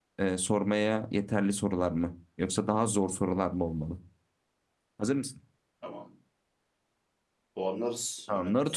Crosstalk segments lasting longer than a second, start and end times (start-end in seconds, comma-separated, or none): none